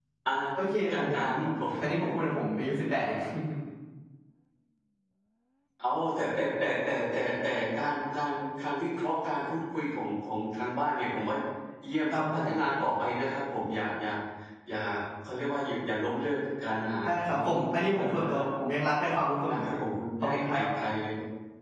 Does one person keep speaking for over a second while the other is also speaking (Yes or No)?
Yes